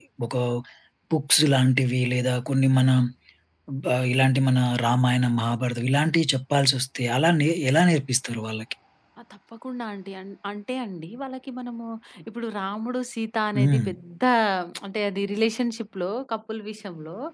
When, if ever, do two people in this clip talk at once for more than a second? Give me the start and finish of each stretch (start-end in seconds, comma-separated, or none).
none